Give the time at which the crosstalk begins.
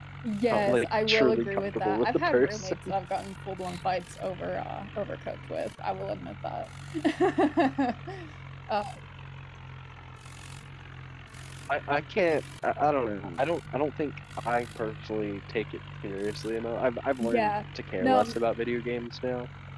0.5 s

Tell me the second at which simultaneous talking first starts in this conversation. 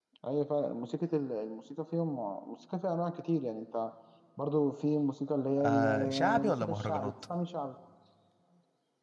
5.6 s

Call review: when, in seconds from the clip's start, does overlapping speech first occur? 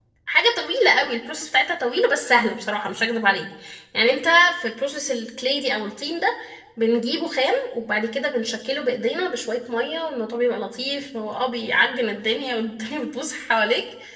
none

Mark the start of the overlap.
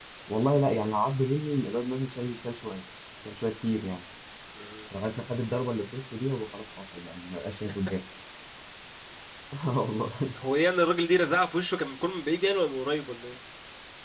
none

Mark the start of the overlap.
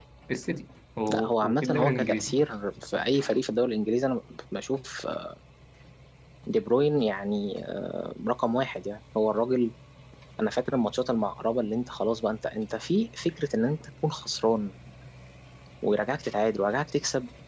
1.1 s

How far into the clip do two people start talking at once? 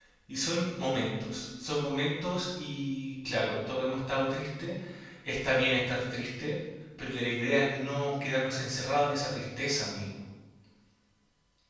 none

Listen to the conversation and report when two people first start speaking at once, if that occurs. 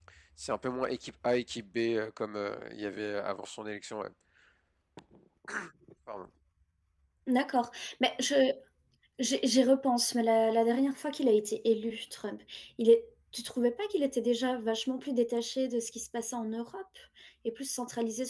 none

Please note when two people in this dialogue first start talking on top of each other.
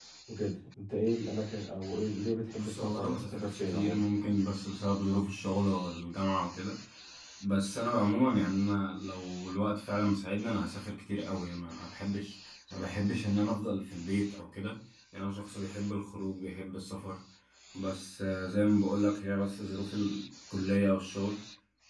2.6 s

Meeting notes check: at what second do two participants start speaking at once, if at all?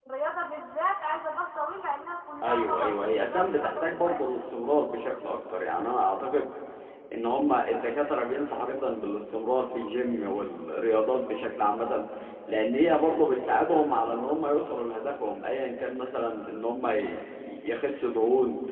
2.4 s

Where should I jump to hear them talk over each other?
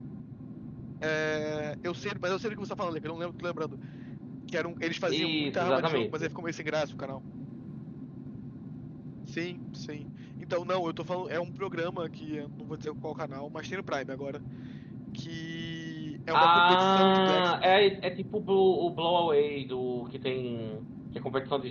5.1 s

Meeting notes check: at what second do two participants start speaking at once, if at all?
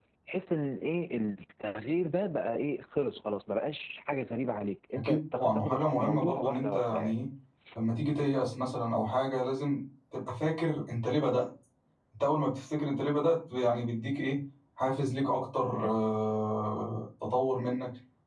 5.0 s

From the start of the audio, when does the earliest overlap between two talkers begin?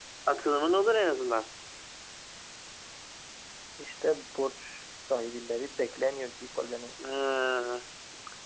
none

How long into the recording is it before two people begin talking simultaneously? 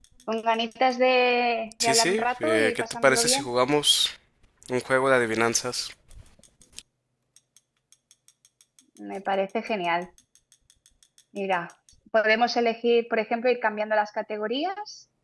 1.8 s

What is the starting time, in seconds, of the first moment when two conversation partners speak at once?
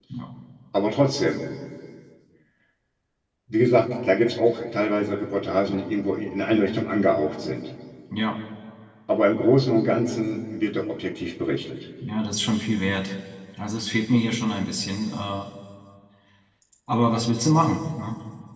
none

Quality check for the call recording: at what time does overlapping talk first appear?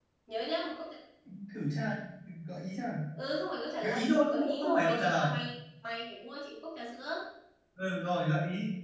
3.8 s

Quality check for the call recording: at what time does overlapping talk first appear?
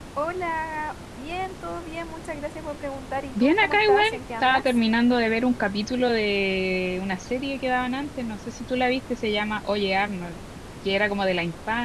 3.3 s

